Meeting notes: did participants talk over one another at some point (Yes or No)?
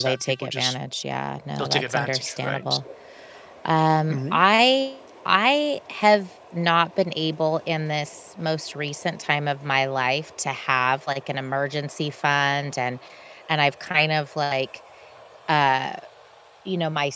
Yes